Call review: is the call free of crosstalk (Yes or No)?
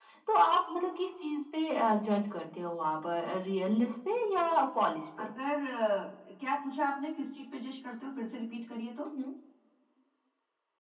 Yes